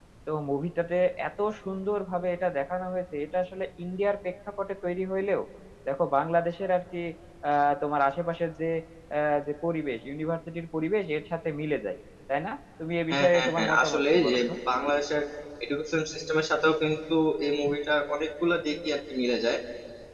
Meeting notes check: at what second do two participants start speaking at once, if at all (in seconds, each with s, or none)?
13.1 s